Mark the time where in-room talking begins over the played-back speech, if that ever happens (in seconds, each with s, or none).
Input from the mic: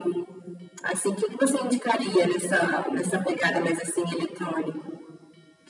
none